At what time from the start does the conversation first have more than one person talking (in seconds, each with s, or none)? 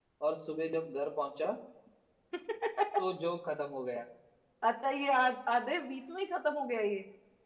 none